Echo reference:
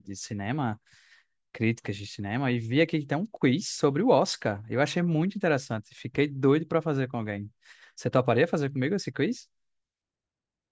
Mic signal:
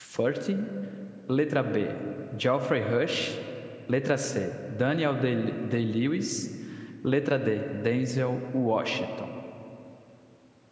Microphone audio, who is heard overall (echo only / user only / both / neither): user only